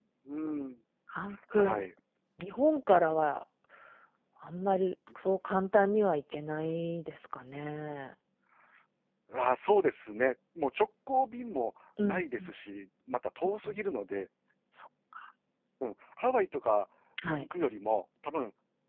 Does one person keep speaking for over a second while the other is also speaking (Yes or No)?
No